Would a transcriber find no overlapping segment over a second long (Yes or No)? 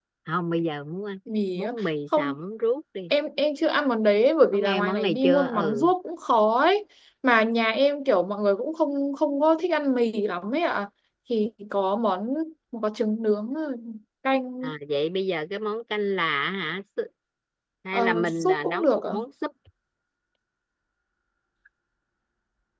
No